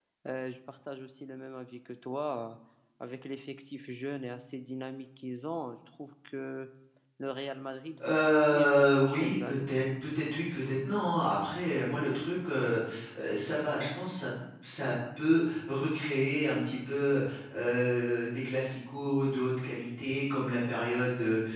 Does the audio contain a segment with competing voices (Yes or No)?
Yes